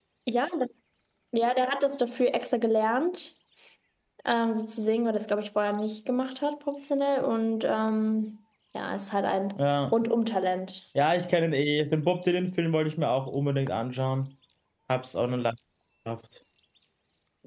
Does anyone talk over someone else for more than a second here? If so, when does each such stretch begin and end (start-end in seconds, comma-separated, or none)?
none